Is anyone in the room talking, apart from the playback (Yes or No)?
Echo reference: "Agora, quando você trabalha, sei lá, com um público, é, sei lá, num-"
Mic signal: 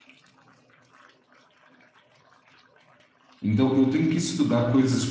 Yes